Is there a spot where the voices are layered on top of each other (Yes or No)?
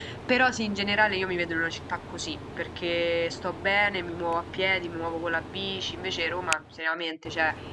No